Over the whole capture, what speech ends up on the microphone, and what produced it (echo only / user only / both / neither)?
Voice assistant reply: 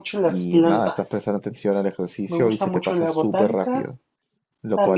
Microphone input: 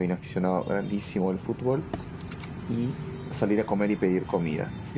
user only